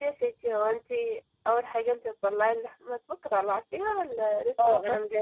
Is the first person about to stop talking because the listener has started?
Yes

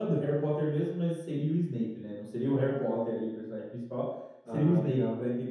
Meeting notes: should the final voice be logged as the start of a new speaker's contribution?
No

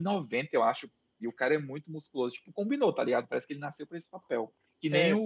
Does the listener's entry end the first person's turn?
No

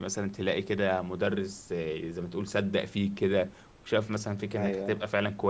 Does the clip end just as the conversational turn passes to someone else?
No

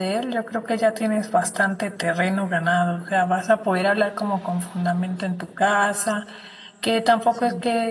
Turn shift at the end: No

